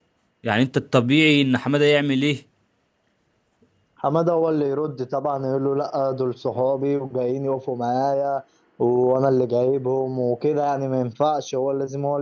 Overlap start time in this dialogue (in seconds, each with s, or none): none